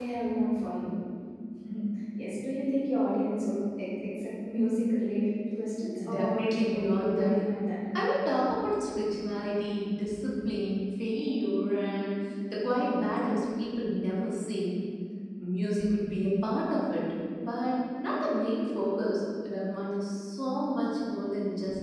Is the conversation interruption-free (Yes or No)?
No